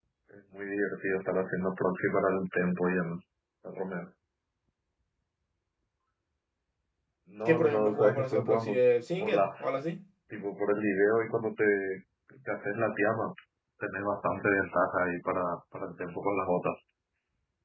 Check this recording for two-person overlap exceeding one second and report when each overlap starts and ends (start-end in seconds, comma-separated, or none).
7.5-8.8